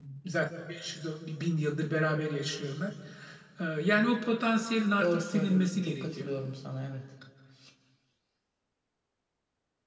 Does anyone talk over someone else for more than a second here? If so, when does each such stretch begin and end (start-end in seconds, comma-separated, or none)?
5.0-6.3